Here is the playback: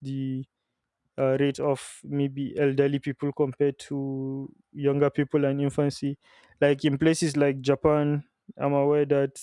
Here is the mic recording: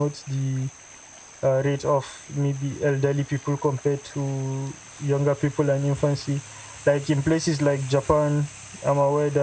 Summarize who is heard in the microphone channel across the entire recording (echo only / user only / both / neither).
echo only